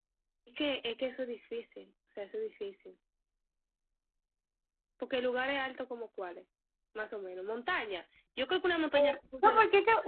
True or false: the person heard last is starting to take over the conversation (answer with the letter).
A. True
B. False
A